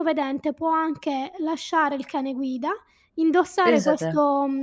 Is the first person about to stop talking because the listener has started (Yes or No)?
No